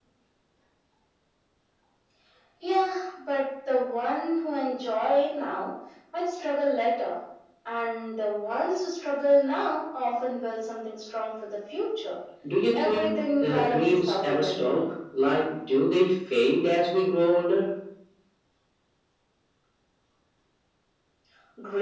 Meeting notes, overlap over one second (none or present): present